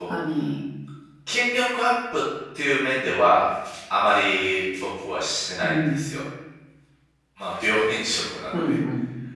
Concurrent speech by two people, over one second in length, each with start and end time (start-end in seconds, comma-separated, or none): none